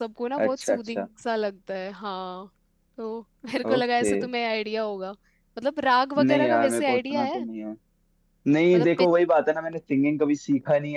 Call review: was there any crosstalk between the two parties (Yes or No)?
Yes